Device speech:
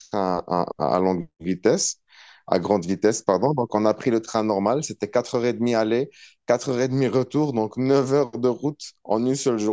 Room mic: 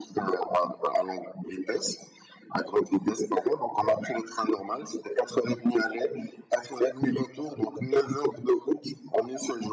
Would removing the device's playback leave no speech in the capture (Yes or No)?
Yes